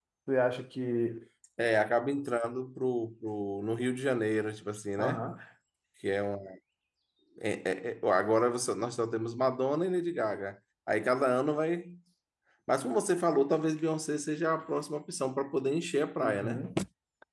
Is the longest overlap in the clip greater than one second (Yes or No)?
No